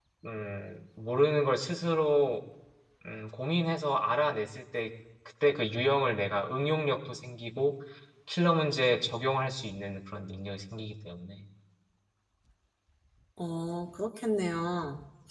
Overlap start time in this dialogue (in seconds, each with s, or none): none